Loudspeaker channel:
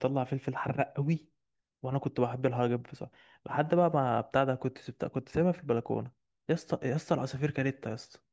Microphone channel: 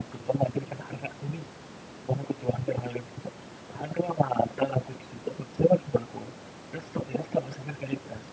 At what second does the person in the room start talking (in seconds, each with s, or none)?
none